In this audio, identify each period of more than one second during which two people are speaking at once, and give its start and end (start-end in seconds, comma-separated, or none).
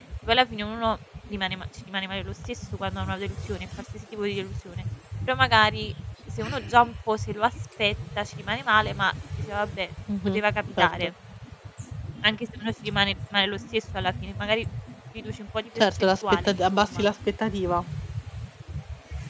15.8-17.0